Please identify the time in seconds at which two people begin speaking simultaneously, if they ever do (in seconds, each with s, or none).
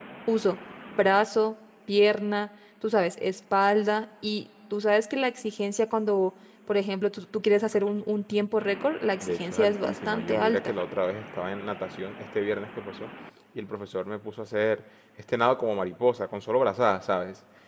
9.2 s